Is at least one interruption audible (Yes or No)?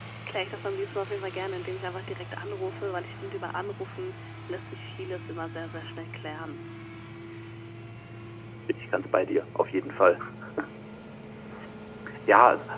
No